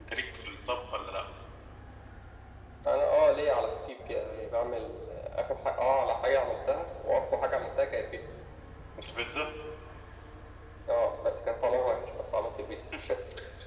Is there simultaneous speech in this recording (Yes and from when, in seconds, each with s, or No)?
No